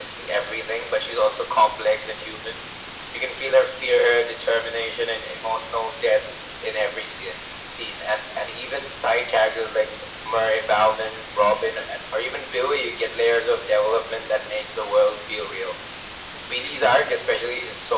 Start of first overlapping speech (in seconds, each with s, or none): none